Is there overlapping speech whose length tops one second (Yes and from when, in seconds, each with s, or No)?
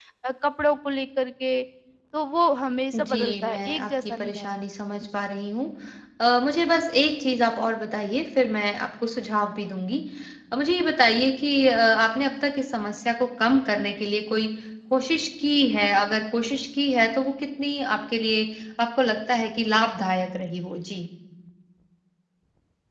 Yes, from 2.9 s